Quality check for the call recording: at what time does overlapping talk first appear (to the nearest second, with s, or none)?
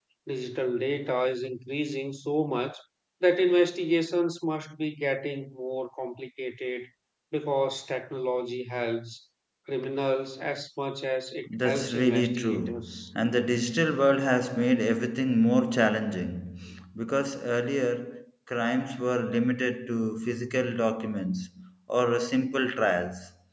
11 s